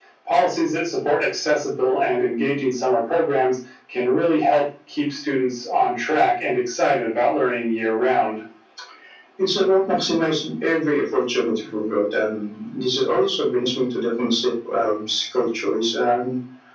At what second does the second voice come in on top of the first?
none

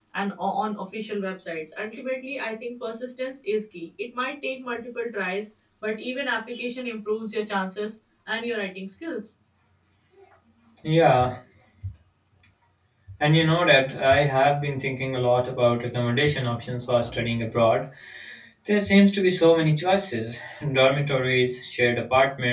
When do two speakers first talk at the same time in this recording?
none

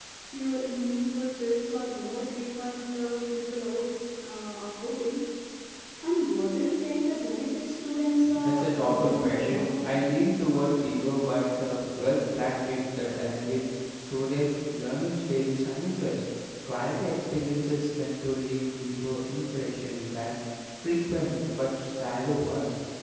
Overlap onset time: 8.3 s

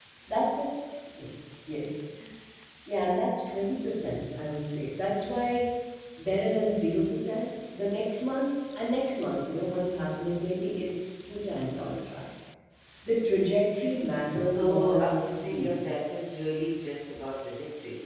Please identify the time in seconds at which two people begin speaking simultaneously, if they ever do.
14.3 s

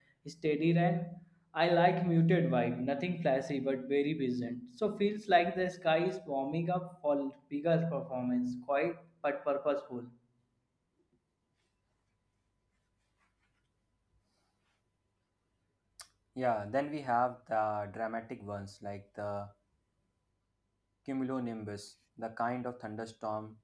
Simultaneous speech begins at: none

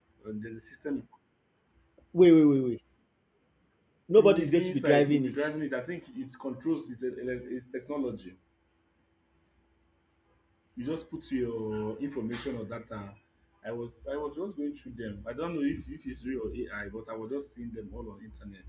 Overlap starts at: 4.2 s

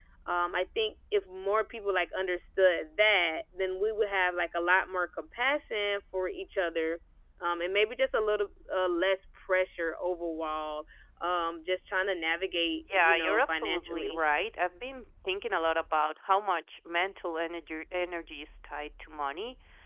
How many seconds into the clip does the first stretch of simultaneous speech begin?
12.9 s

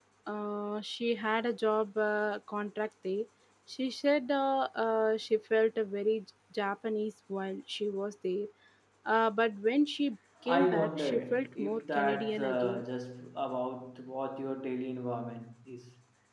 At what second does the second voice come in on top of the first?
10.4 s

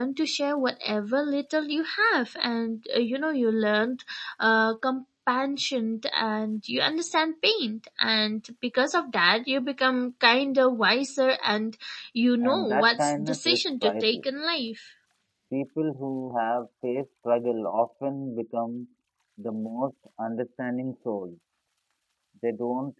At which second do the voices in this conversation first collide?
12.4 s

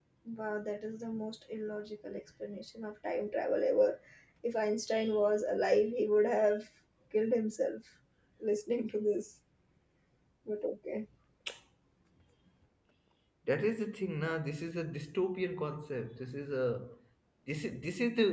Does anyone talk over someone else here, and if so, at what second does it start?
none

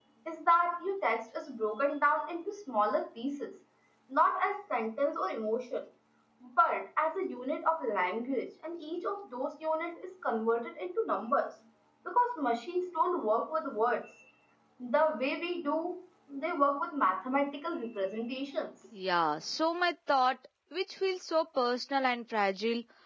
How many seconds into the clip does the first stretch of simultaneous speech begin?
none

